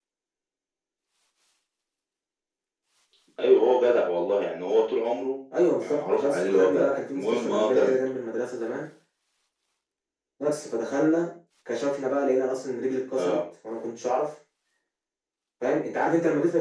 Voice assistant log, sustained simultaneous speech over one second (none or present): present